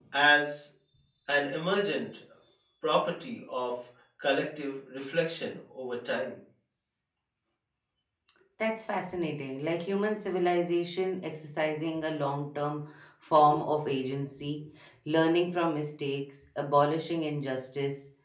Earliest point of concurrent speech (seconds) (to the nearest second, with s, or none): none